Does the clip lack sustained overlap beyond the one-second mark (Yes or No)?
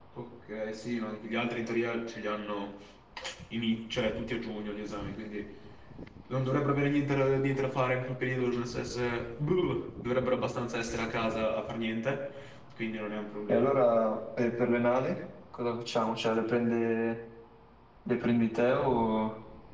Yes